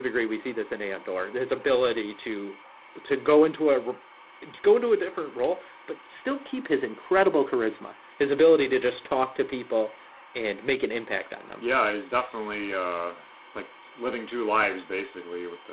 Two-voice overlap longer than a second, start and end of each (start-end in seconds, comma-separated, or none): none